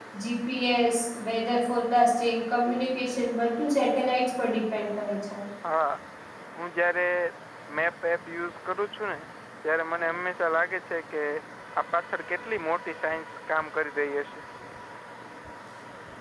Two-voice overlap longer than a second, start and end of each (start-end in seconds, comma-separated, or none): none